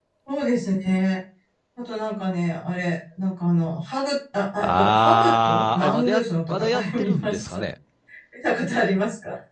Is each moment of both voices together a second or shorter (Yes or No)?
No